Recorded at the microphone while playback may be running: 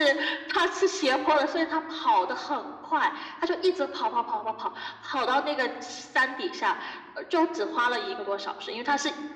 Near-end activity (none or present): none